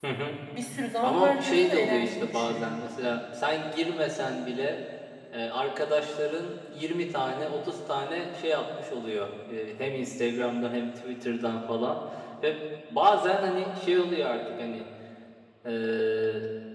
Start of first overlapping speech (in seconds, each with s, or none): 1.0 s